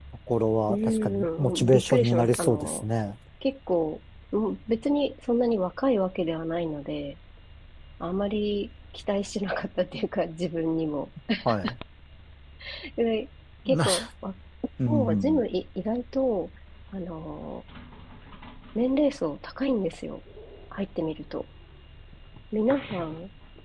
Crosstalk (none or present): present